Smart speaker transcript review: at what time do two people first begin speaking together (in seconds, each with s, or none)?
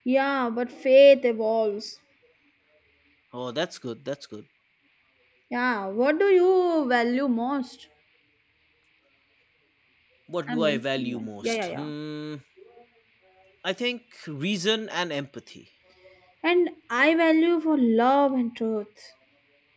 10.5 s